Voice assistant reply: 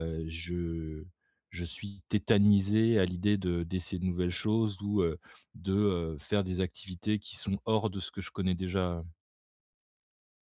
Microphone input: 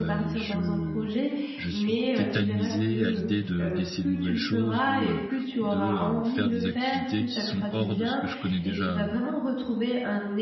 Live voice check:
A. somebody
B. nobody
A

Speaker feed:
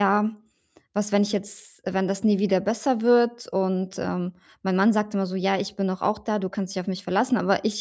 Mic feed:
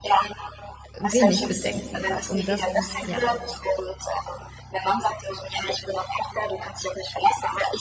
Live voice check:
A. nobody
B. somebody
B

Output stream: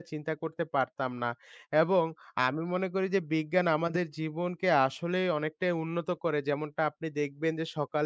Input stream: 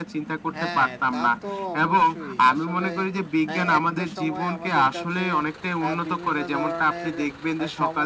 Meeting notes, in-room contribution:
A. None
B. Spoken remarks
B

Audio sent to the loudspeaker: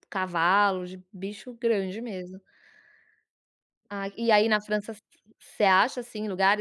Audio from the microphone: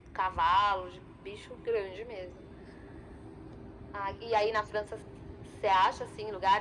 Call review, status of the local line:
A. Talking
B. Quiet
B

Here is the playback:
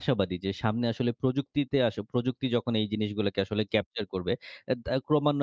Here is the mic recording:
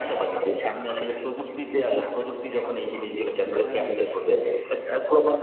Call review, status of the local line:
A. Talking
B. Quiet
A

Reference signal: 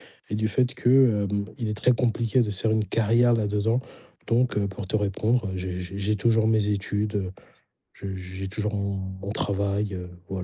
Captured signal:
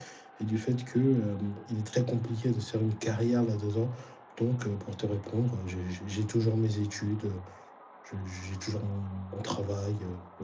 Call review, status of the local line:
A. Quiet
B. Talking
A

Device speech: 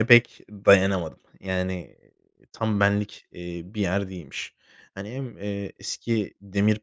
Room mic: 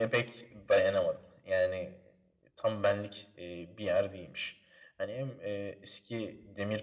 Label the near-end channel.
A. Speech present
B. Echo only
B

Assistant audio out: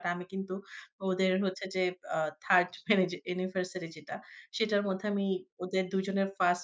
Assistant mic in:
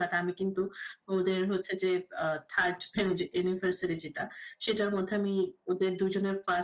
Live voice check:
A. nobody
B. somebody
A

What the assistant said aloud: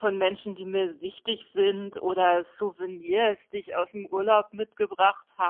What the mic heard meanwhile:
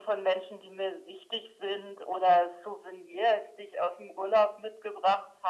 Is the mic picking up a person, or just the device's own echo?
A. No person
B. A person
A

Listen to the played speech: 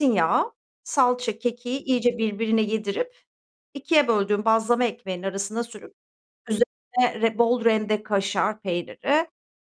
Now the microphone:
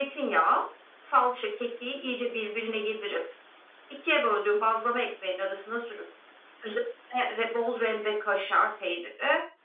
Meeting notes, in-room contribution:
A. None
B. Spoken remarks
A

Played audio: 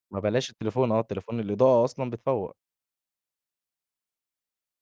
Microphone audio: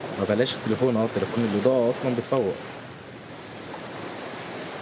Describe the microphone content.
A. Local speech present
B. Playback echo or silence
B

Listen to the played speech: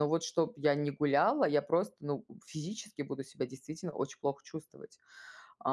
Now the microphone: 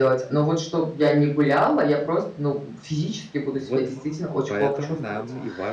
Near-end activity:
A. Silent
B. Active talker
B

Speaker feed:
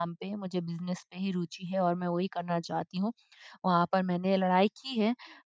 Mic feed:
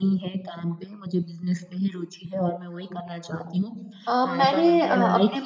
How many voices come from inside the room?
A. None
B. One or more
B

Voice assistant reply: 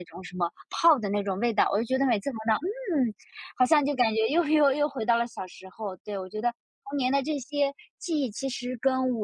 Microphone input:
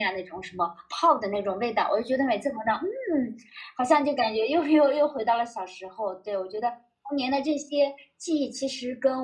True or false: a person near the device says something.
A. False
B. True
A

